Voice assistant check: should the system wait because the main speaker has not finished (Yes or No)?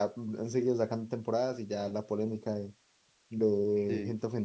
Yes